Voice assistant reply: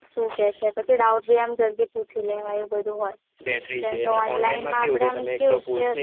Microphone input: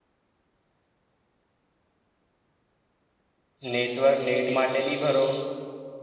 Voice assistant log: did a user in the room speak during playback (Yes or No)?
Yes